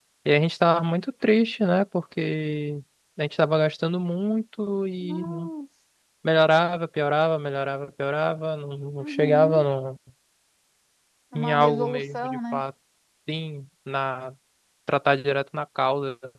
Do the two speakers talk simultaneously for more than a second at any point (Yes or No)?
Yes